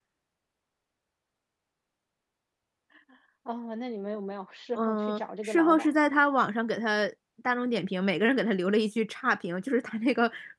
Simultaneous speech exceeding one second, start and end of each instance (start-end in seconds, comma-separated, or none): 4.8-6.0